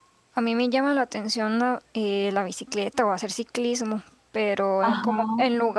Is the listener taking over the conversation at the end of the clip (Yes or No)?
No